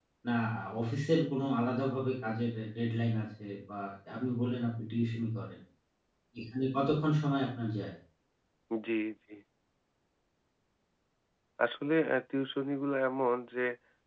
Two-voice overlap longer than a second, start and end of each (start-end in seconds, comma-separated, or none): none